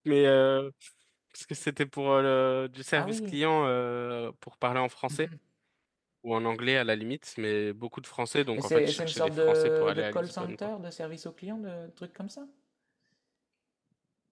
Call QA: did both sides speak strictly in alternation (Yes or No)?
No